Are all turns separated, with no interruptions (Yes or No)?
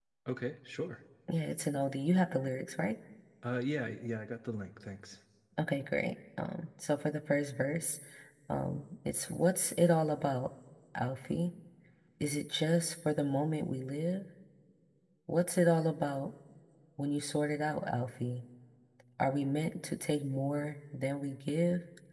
Yes